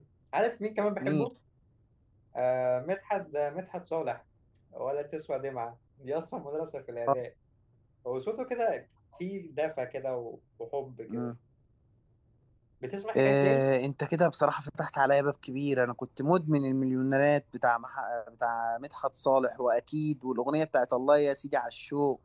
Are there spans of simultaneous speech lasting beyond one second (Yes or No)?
No